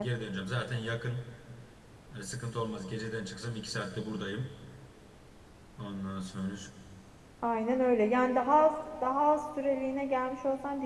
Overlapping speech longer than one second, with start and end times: none

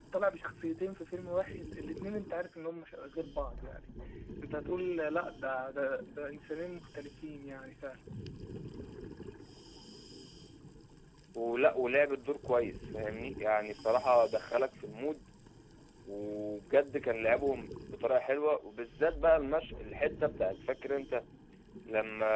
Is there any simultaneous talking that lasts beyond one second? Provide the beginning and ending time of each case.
none

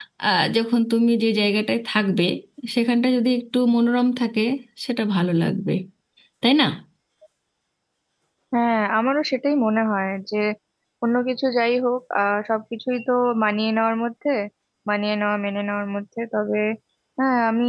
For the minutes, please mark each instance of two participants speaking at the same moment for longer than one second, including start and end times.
none

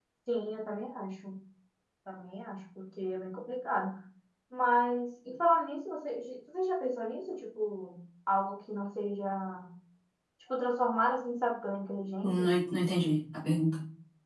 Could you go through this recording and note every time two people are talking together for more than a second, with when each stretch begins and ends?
none

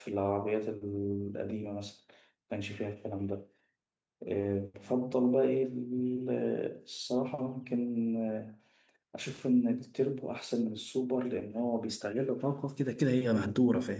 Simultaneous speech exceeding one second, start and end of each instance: none

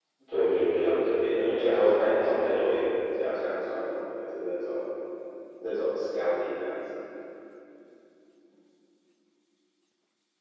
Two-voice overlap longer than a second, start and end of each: 1.4-2.8

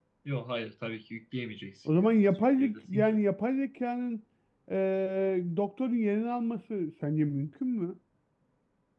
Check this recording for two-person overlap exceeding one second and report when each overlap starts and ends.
1.9-3.2

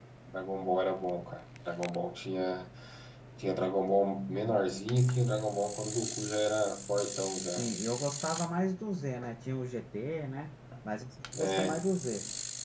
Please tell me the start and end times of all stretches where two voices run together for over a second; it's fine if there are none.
none

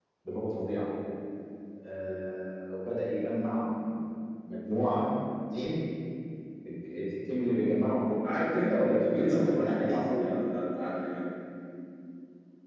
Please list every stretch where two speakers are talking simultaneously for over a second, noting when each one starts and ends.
8.3-10.3

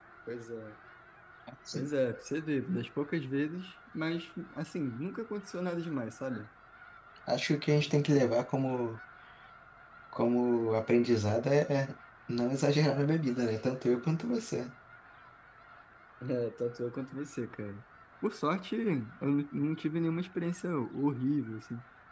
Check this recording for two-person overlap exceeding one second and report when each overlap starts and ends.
none

